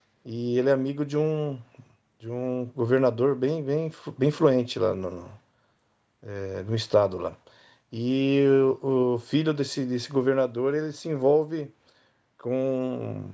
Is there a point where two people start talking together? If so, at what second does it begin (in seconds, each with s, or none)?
none